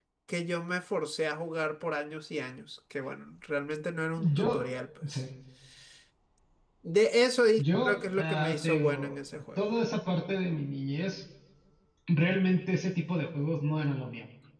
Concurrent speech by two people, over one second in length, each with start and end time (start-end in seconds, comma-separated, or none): 7.6-9.7